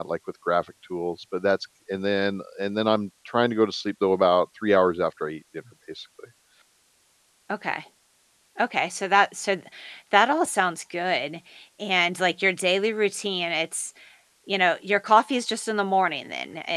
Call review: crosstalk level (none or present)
none